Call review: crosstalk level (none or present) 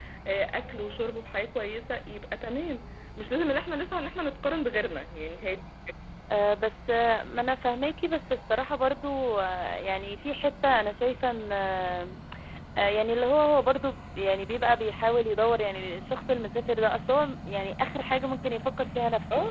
none